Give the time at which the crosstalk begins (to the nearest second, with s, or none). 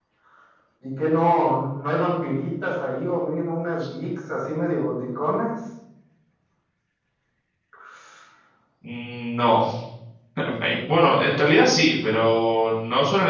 none